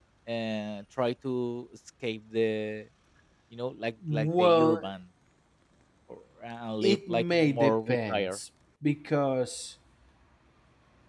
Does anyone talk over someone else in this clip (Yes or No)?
Yes